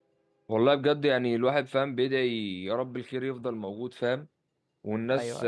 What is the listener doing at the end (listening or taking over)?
listening